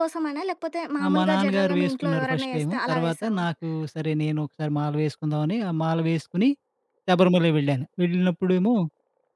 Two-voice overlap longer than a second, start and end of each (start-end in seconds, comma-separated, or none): 1.0-3.4